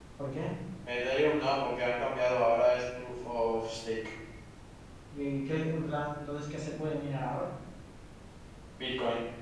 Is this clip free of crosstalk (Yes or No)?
Yes